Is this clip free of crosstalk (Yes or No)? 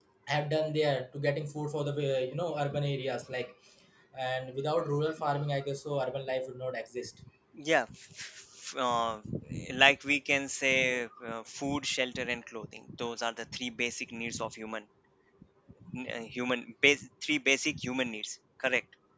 Yes